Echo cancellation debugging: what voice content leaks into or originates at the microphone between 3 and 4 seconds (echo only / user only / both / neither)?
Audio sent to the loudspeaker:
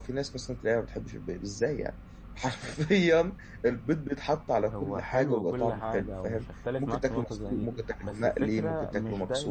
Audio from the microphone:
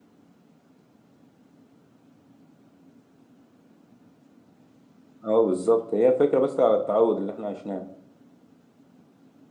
neither